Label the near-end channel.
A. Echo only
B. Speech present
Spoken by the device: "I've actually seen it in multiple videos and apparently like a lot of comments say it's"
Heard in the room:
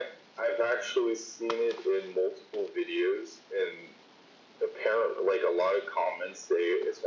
A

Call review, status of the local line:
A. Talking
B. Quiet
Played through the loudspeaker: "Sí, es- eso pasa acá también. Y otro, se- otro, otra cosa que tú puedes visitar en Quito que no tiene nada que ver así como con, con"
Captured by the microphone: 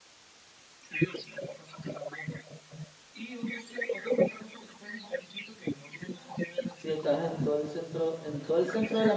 A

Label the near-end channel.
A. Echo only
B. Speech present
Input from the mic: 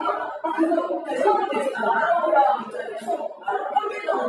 A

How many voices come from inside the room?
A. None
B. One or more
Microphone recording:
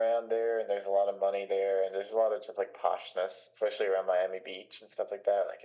A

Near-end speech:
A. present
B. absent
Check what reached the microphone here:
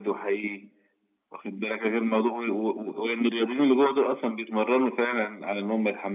B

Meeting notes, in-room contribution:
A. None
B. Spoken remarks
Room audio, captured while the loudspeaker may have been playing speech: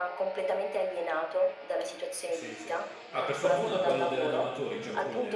B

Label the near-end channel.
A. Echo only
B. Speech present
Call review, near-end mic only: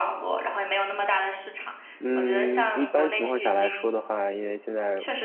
B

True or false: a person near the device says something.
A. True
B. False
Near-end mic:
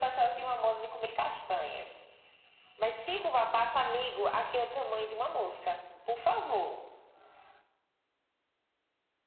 B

